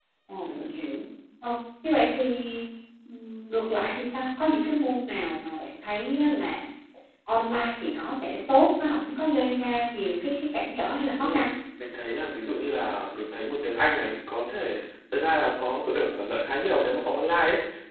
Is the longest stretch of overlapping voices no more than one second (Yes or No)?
Yes